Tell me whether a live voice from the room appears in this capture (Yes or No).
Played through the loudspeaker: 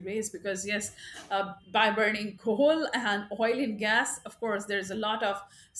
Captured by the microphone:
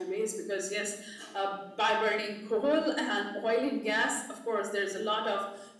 No